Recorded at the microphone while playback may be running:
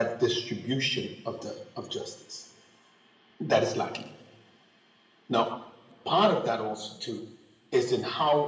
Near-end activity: none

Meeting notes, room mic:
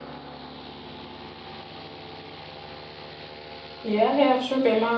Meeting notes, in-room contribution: present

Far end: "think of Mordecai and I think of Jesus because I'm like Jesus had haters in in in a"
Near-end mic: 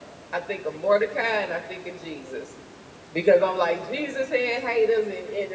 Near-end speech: none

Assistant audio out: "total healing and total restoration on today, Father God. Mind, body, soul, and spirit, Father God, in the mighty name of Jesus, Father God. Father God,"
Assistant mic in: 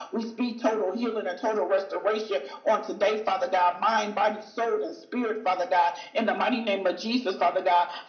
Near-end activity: none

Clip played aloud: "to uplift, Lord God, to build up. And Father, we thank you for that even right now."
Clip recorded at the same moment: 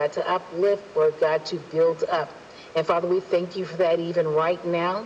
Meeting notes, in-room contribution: none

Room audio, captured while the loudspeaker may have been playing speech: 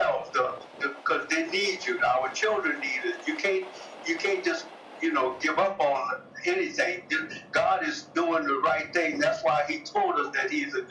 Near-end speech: none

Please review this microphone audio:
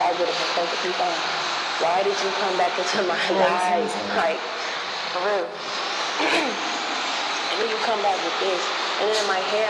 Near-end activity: present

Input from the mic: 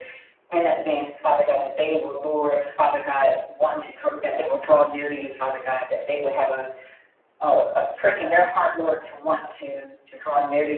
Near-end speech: none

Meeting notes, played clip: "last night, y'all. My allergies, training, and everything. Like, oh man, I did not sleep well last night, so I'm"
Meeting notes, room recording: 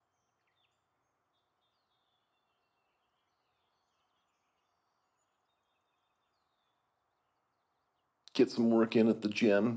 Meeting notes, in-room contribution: present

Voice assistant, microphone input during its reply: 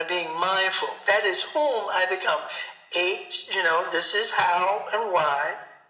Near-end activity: none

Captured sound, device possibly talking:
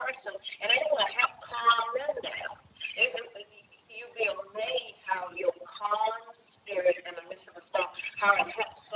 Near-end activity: none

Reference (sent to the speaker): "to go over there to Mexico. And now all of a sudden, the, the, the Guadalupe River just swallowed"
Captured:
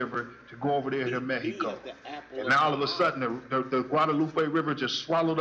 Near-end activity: present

